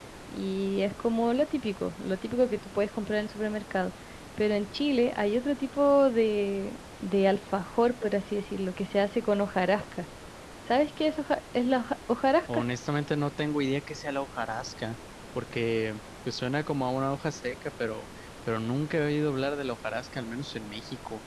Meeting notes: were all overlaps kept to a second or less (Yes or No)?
Yes